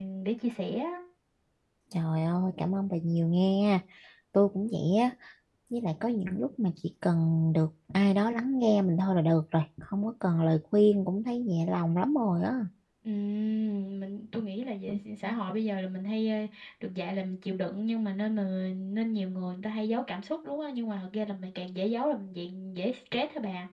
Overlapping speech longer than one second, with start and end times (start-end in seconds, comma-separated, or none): none